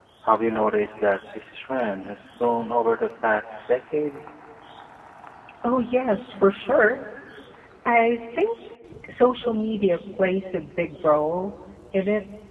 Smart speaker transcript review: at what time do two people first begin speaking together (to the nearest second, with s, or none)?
none